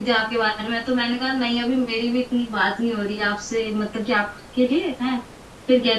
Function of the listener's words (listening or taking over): listening